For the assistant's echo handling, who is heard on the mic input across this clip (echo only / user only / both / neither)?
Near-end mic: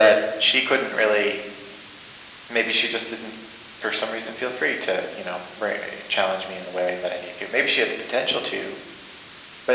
echo only